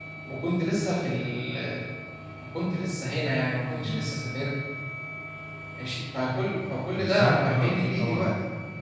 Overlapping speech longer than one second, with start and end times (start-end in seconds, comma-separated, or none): 7.0-8.3